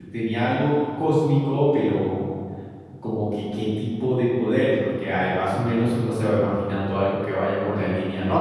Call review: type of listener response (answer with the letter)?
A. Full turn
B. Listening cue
A